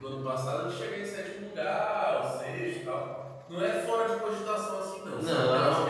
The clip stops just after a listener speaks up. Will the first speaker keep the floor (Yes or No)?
No